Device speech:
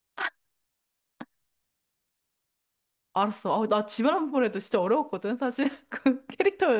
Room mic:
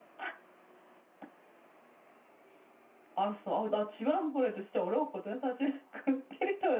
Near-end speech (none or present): none